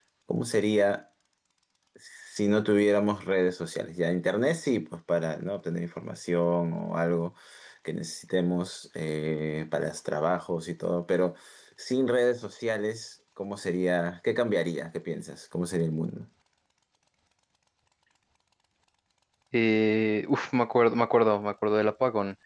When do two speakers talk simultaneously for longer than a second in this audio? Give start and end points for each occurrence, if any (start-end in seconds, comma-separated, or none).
none